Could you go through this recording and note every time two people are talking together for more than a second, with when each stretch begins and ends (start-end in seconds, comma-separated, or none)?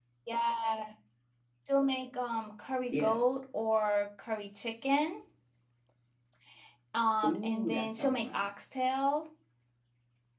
7.2-8.4